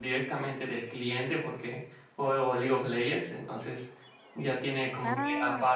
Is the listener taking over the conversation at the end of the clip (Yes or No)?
No